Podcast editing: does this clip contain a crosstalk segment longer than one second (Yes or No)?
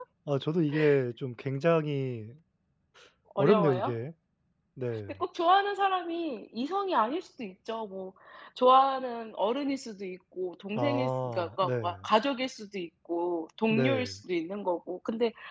Yes